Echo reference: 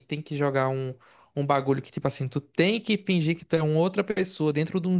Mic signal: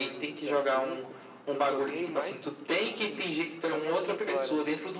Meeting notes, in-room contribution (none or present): present